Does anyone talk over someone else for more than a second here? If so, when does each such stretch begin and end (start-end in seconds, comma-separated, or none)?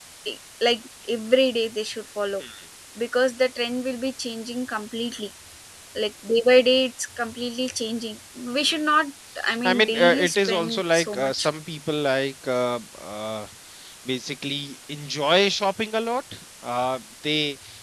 9.6-11.5